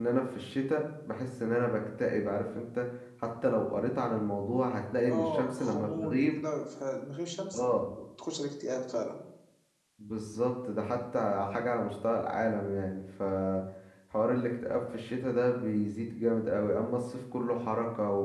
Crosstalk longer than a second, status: present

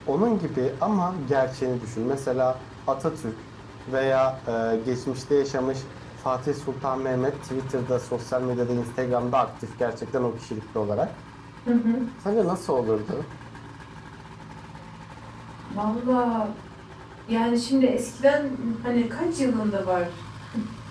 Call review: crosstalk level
none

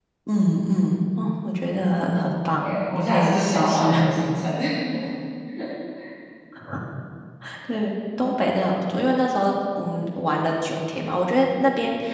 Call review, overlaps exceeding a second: present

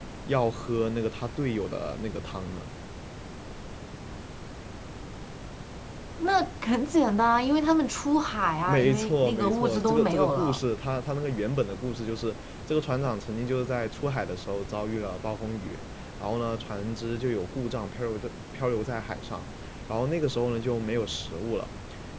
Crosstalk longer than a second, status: present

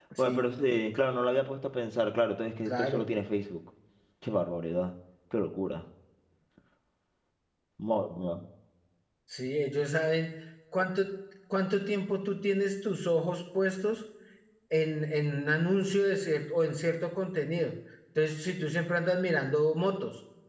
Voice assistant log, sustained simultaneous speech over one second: none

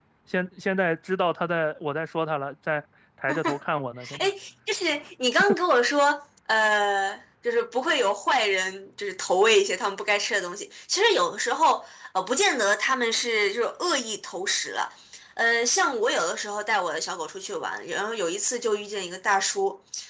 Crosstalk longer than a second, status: none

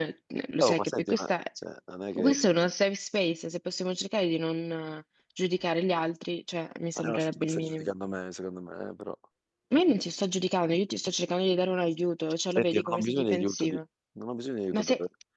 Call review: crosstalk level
present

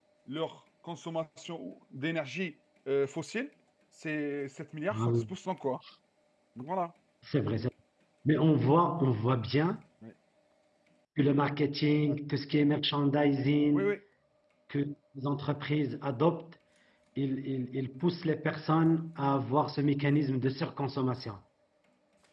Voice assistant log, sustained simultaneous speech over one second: none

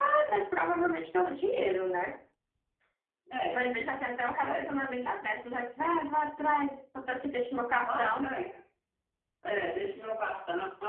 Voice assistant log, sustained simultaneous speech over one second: none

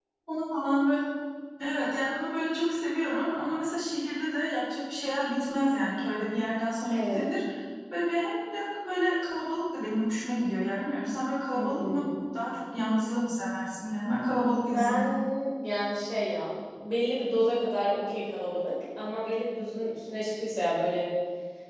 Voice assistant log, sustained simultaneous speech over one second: none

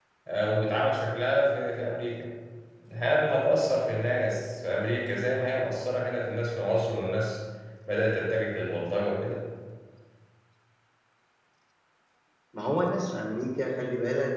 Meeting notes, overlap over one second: none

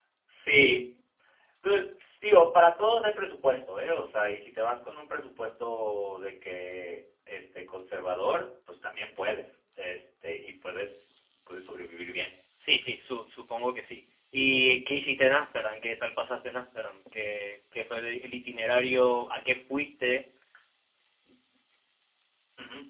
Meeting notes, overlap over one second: none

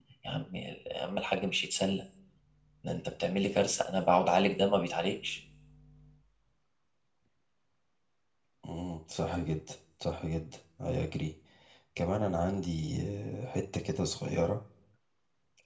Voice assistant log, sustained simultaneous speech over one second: none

